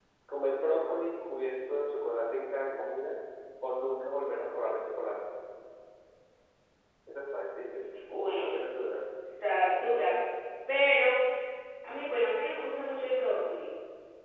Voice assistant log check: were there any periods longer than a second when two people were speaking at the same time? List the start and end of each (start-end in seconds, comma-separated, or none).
none